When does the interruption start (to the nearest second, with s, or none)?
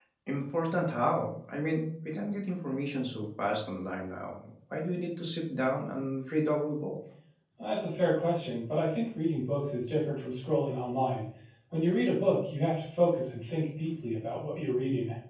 none